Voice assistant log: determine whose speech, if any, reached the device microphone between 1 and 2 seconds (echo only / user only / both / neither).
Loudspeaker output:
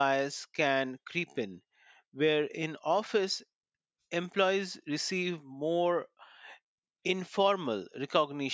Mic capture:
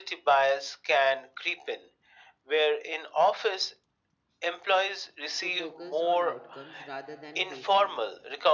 echo only